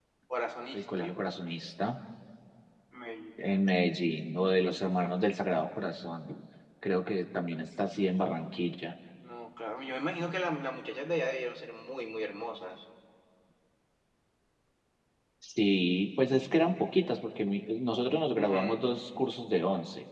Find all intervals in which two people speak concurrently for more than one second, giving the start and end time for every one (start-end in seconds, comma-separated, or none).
none